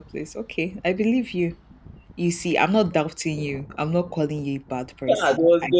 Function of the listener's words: taking over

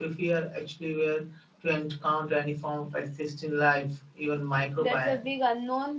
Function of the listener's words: taking over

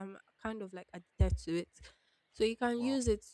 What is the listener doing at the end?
listening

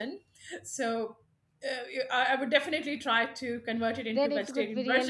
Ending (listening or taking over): taking over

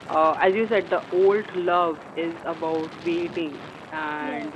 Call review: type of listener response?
listening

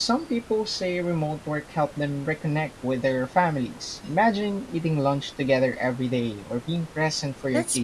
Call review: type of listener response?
taking over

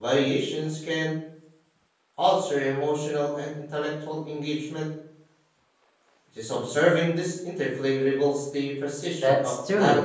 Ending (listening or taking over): taking over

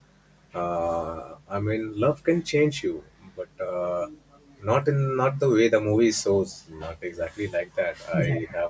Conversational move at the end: listening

